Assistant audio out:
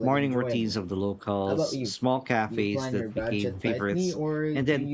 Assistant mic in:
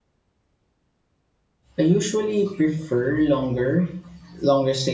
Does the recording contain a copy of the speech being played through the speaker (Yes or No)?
No